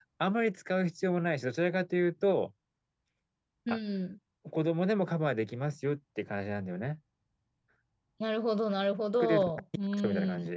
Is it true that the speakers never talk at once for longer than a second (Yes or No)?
Yes